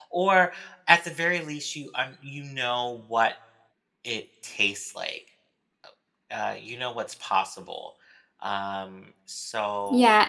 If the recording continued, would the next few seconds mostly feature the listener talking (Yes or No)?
Yes